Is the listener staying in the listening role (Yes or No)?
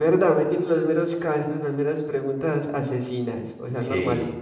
No